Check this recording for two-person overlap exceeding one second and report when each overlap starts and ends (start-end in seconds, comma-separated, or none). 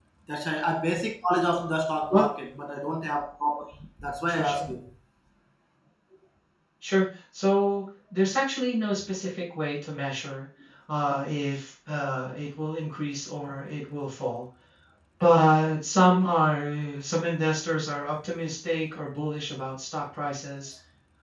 none